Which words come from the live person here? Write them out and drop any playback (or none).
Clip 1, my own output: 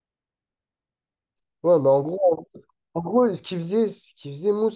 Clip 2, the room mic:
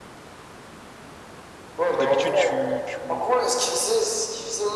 D'habitude, tu, tu,